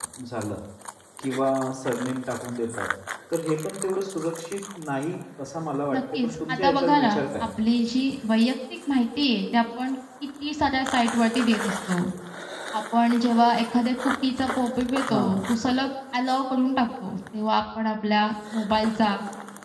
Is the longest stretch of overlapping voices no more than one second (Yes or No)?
No